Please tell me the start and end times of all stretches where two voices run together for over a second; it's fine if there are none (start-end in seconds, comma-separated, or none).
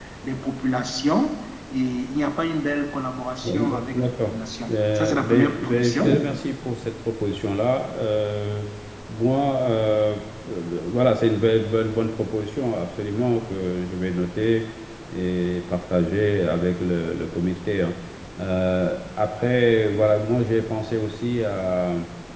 3.4-6.0